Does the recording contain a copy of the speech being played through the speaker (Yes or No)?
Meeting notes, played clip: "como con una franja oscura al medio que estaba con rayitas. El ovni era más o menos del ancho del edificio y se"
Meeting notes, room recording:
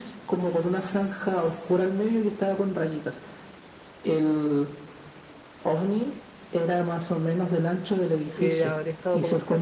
Yes